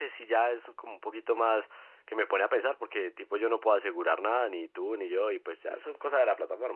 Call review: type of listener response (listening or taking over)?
listening